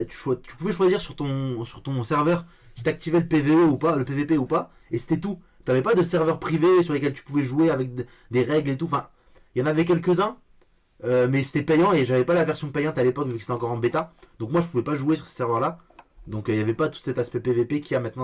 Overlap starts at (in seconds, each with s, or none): none